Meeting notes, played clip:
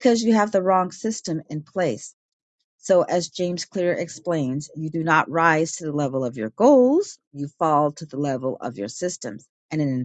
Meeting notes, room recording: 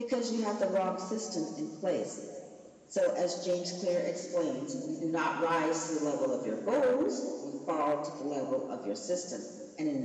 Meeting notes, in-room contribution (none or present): none